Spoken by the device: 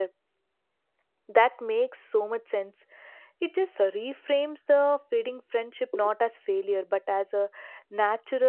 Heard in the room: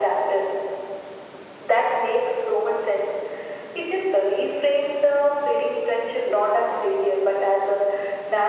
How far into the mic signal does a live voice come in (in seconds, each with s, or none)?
none